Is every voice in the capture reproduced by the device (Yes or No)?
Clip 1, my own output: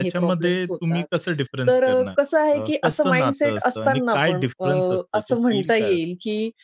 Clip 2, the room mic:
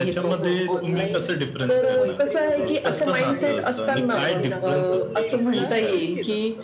No